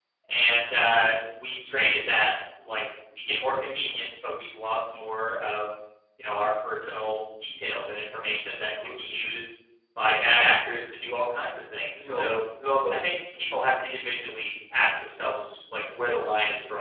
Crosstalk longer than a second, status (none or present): none